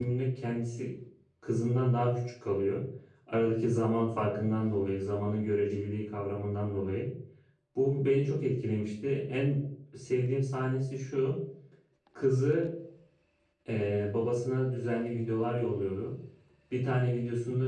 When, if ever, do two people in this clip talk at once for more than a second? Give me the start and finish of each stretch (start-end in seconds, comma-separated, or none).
none